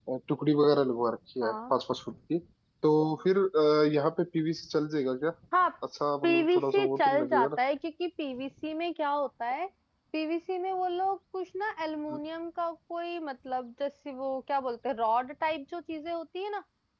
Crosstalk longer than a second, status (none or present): present